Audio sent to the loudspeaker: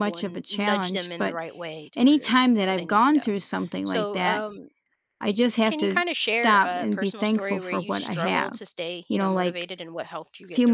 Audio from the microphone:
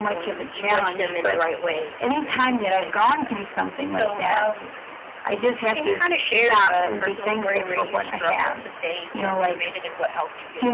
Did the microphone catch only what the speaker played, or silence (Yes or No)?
Yes